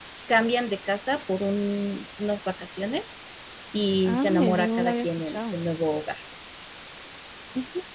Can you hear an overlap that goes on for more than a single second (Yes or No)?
Yes